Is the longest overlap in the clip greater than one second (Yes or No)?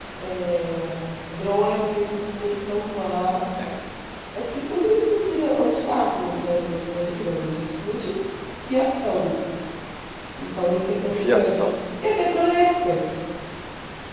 No